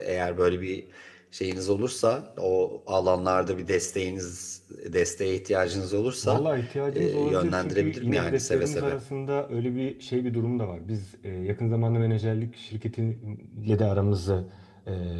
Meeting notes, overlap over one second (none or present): present